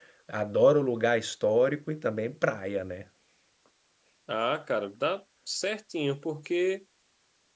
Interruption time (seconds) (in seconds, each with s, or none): none